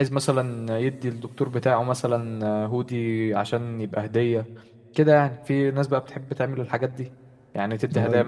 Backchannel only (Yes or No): No